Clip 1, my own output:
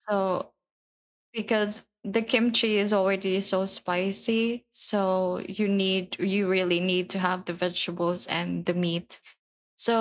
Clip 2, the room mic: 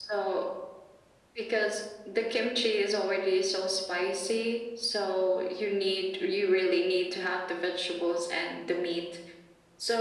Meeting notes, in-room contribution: none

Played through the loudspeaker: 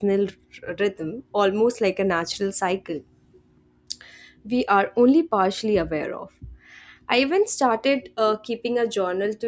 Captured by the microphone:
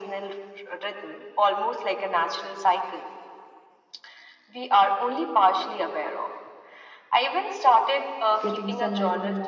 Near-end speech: present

